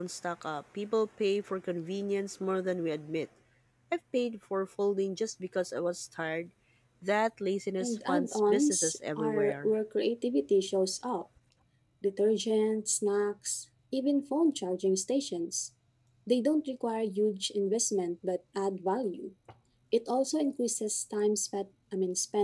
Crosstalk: present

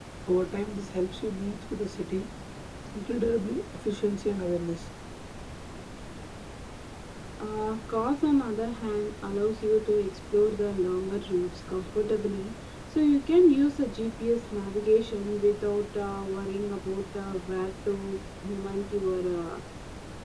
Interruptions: none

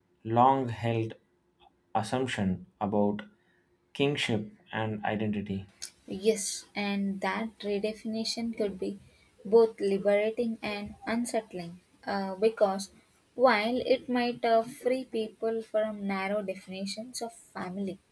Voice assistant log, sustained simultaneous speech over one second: none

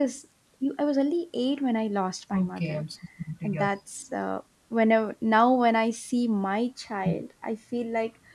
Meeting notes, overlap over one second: none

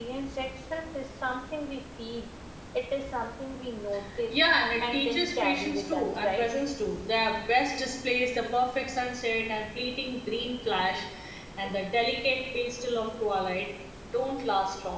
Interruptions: present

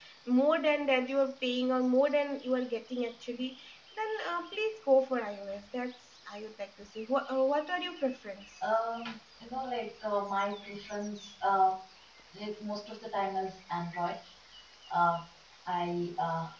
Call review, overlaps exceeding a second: none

